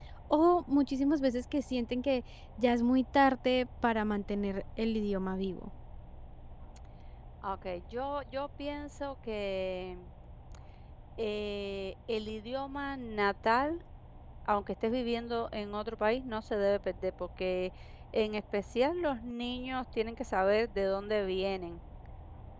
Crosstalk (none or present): none